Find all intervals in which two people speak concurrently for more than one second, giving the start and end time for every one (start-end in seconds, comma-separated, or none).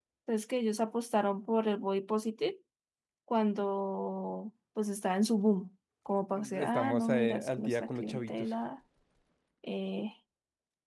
6.6-8.5